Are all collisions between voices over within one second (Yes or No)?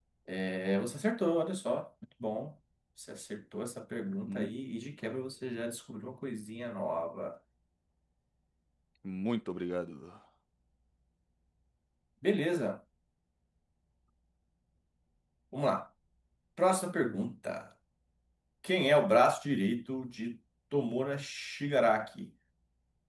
Yes